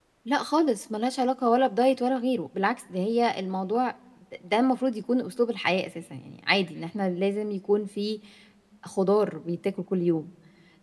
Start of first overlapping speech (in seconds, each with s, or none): none